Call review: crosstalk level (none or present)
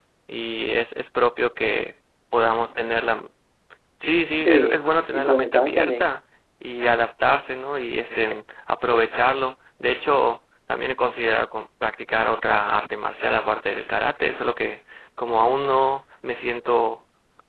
present